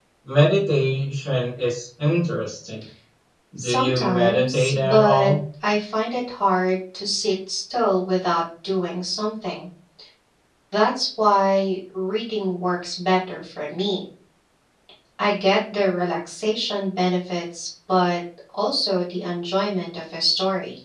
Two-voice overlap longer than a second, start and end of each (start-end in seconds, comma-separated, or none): 3.6-5.3